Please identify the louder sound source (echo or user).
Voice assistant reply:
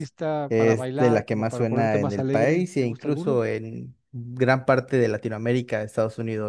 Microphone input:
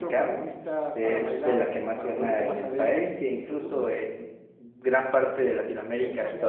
echo